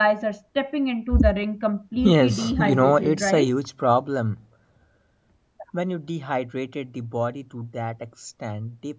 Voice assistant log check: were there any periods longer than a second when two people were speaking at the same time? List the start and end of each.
2.0-3.5

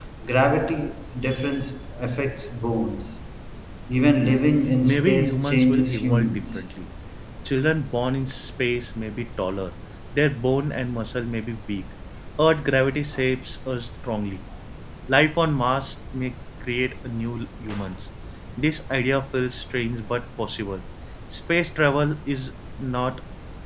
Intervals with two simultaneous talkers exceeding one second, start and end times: 4.8-6.6

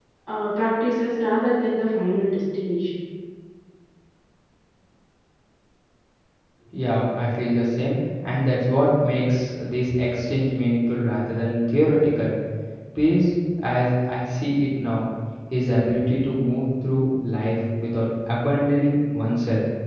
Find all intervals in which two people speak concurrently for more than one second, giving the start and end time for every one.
none

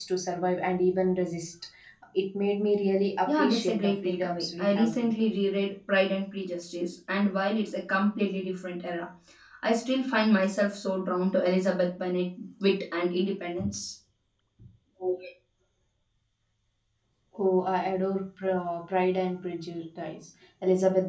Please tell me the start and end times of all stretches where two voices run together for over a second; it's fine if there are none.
3.3-5.2

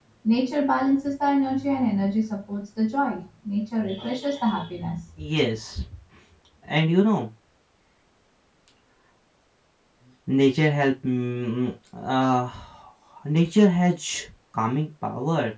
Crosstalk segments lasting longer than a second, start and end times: none

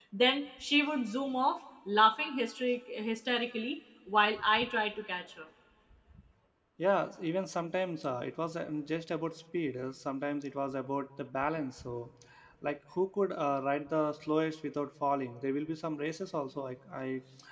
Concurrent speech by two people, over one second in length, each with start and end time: none

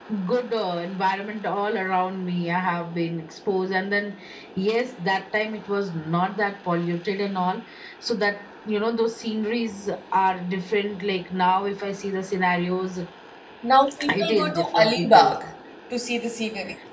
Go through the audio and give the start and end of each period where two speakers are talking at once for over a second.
14.1-15.4

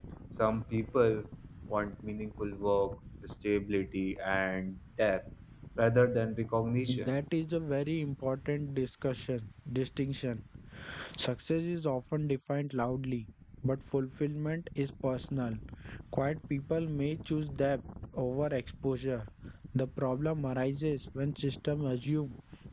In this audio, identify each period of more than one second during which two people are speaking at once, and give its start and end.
none

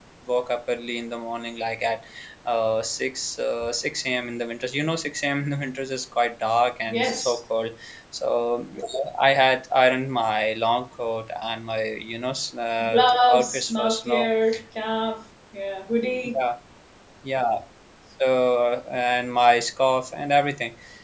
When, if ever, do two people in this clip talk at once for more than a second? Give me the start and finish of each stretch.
12.9-14.2

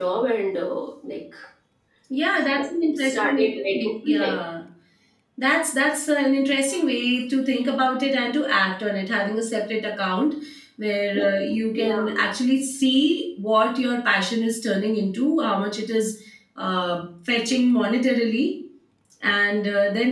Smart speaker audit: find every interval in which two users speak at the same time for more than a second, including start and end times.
3.0-4.3

